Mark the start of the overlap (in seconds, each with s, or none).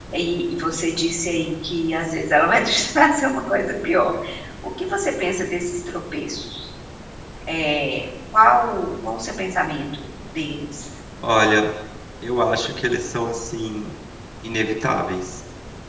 none